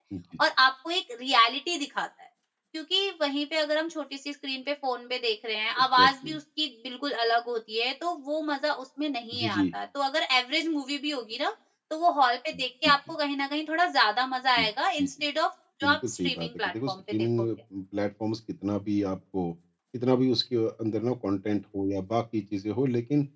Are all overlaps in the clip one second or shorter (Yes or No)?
No